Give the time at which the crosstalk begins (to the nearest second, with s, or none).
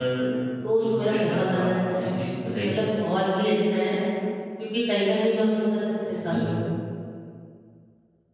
1 s